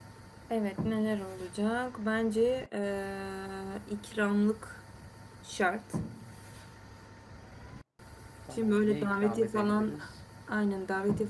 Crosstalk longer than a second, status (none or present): present